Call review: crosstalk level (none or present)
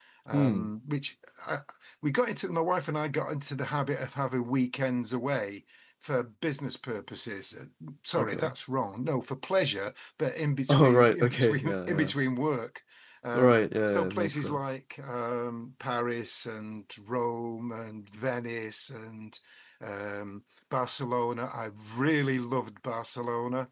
present